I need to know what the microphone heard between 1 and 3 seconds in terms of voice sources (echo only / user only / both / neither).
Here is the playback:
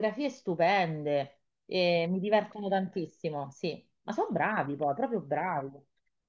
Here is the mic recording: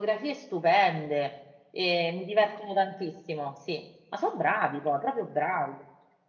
echo only